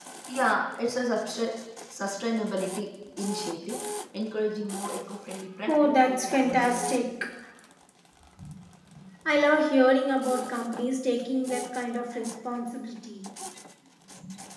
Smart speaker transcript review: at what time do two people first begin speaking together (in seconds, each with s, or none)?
5.7 s